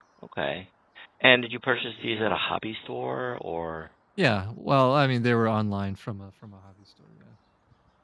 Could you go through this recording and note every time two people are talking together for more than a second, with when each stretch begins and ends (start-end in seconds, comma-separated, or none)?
none